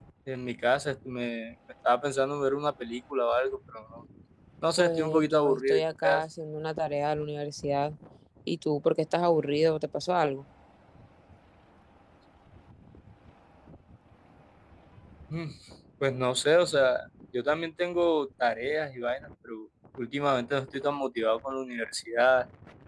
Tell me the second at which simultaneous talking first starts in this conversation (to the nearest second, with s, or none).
5 s